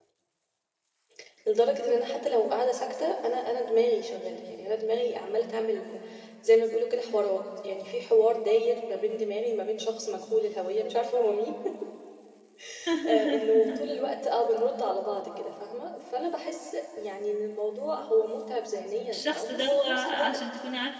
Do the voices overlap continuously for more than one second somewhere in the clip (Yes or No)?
Yes